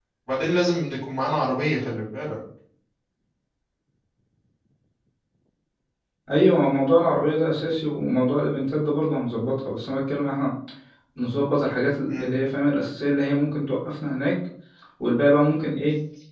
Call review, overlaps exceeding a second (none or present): none